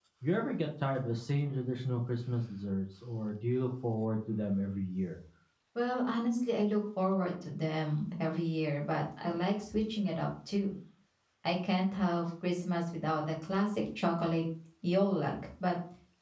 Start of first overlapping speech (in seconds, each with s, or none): none